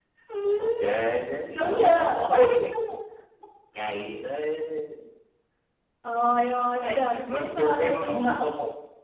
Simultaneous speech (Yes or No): Yes